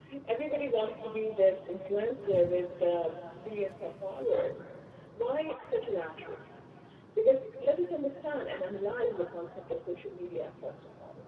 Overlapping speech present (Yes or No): No